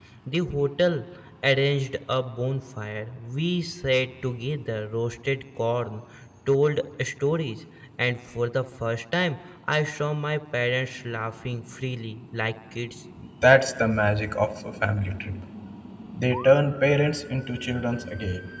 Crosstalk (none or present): none